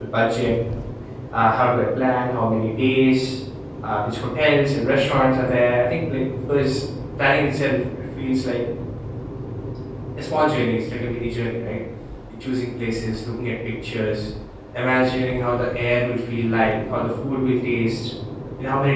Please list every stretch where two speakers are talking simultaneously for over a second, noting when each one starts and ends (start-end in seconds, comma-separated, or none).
none